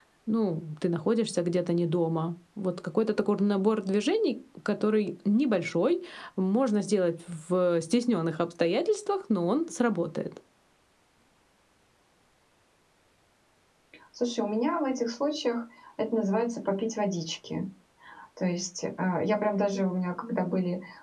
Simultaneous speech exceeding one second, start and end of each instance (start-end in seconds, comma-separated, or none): none